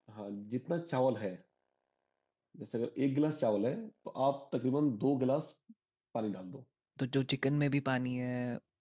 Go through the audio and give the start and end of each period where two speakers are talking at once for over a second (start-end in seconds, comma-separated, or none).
none